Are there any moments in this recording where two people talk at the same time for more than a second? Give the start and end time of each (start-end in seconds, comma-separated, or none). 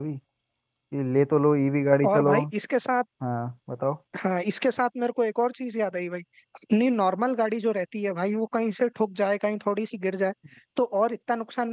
none